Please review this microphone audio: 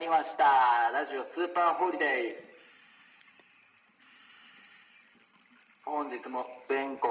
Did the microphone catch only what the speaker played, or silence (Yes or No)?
Yes